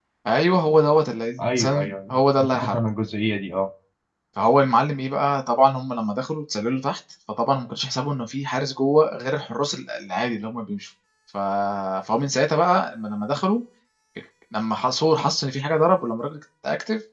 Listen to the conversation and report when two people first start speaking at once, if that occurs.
1.4 s

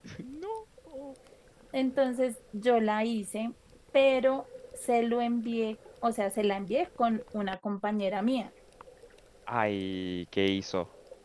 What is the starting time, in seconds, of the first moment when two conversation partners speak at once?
none

